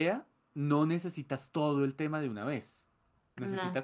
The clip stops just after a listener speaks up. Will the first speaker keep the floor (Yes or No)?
Yes